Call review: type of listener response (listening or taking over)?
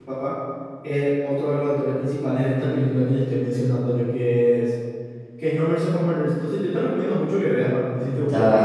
taking over